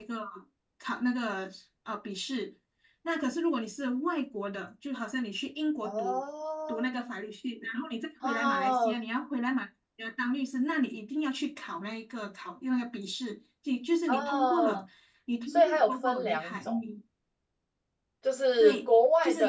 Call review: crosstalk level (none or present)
present